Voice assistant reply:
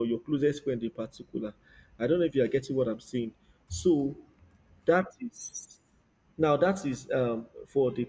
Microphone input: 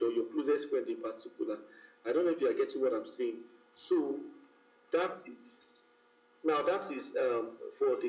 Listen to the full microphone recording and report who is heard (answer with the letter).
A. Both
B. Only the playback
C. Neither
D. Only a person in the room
B